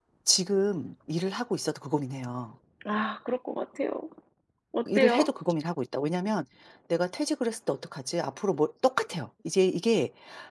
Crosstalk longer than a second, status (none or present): none